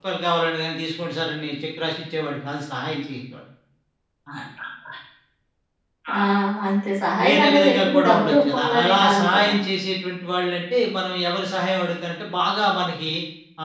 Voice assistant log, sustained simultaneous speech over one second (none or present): present